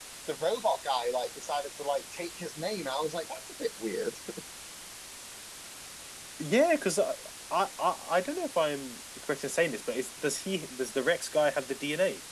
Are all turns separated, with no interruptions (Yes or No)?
Yes